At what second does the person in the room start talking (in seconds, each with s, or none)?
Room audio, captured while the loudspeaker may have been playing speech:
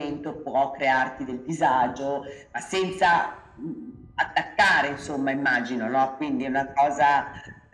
none